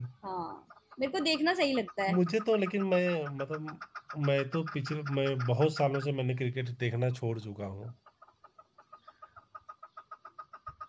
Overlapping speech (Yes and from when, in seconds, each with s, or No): No